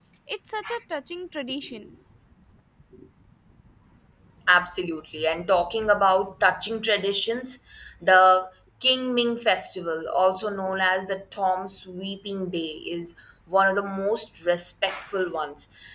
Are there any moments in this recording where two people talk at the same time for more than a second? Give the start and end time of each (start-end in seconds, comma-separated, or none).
none